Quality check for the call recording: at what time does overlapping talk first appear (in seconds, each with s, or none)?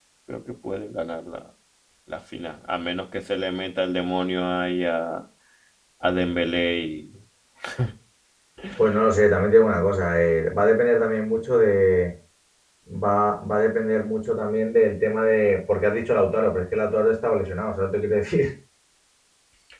none